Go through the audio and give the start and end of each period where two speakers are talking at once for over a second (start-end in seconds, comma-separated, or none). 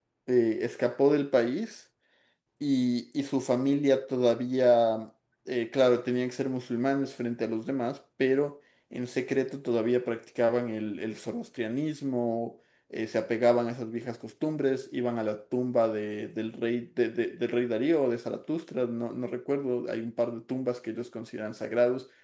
none